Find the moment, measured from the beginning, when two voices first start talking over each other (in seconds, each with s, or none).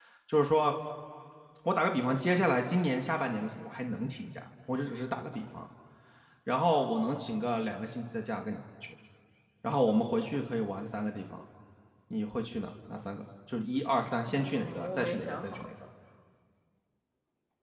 14.3 s